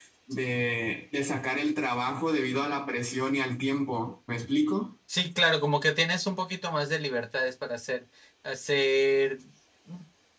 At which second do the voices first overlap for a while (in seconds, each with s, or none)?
none